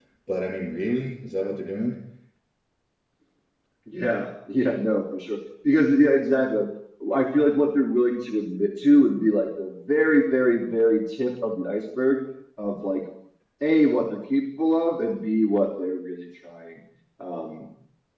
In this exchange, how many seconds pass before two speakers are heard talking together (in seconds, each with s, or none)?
none